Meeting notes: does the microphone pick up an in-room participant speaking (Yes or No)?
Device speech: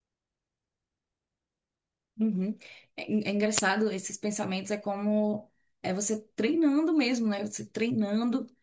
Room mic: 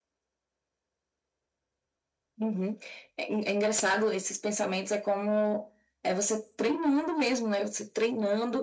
No